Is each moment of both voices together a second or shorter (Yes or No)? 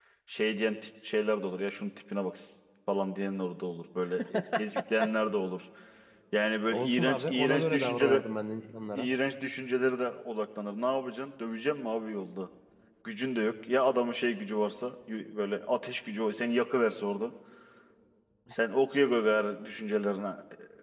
No